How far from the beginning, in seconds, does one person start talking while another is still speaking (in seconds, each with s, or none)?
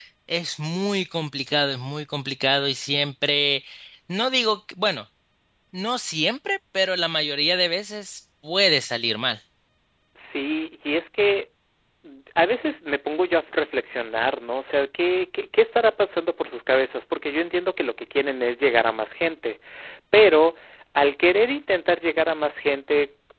none